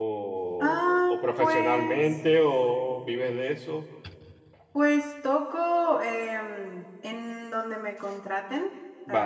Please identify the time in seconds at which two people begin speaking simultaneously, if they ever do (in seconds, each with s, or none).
0.6 s